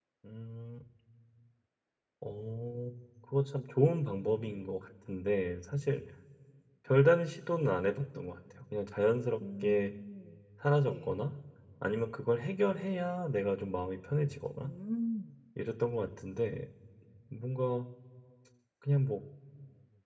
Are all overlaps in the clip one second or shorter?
Yes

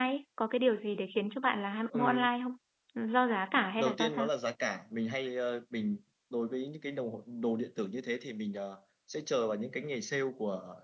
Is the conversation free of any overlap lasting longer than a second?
Yes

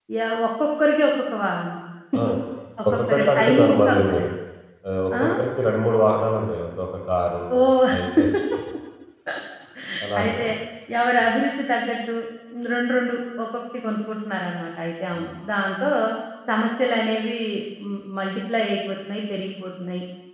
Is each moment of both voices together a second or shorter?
No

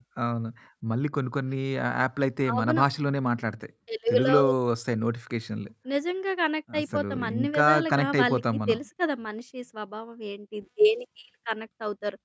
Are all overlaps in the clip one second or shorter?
No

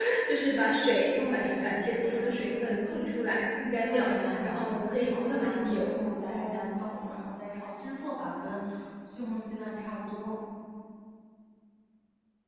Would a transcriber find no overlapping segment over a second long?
No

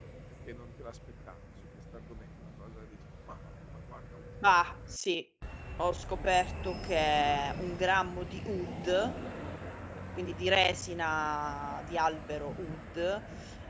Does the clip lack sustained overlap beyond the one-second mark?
Yes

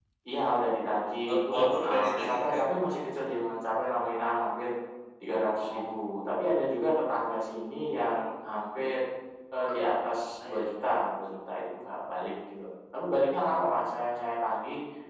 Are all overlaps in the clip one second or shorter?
No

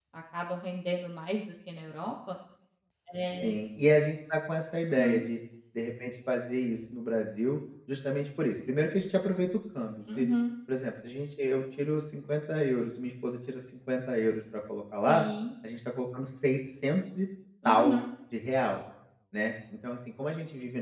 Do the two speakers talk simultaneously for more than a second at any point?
No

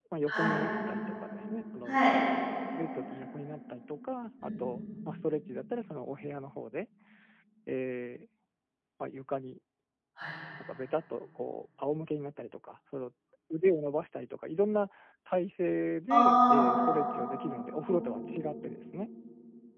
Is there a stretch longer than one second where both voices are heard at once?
No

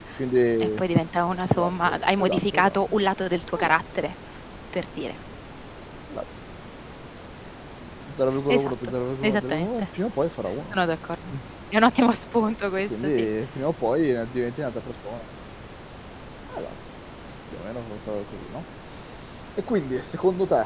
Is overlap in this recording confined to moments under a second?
No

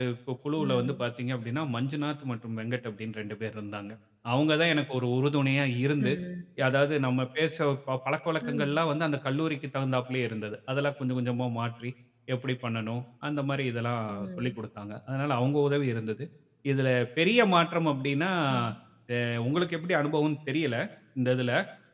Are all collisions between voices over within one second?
Yes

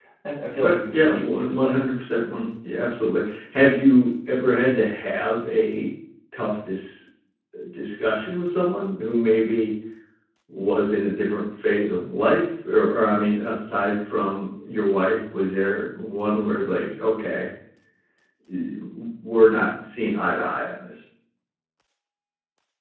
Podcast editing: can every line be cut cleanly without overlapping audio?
No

